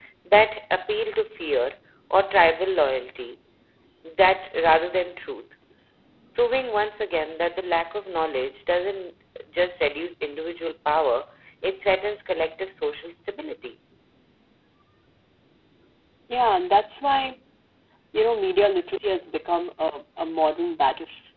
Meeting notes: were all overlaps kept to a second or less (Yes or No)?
Yes